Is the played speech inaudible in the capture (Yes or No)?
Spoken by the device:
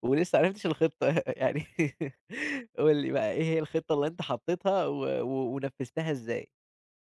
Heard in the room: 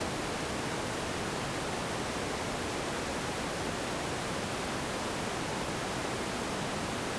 Yes